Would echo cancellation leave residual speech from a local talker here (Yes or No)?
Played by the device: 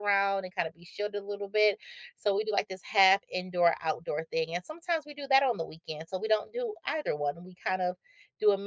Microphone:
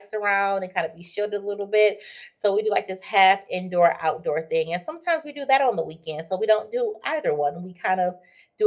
No